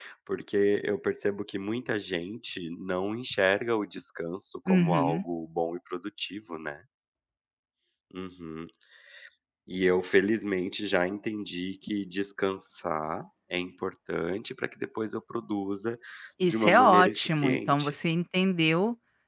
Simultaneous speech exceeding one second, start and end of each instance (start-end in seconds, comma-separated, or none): 16.4-17.9